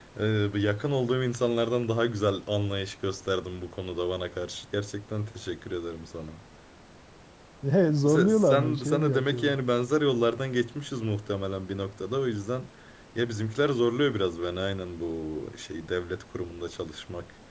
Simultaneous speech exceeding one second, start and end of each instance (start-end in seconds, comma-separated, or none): 8.1-9.6